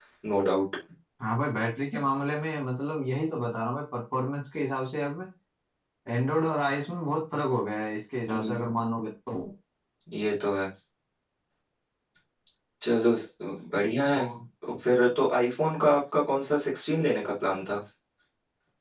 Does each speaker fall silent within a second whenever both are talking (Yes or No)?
Yes